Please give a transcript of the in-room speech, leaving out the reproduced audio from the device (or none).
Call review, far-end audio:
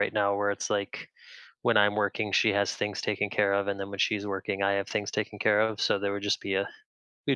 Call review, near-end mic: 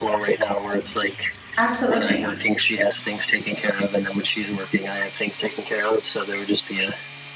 Absolutely.